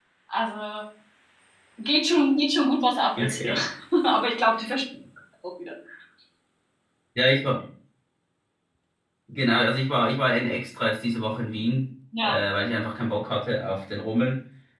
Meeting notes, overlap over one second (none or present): none